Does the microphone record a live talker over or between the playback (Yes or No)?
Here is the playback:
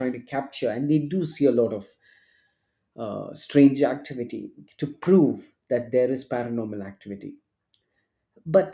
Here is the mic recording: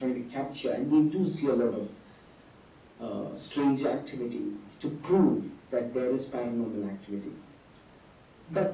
No